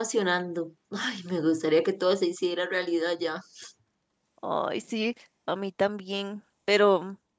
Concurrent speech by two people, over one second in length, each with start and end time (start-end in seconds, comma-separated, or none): none